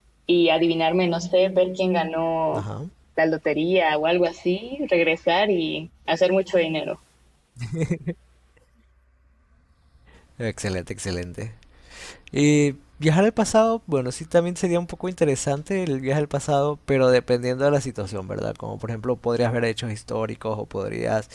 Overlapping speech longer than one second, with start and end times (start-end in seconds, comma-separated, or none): none